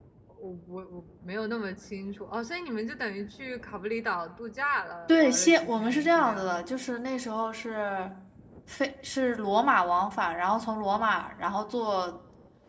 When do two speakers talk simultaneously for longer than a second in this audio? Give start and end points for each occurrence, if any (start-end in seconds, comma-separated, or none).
5.1-6.7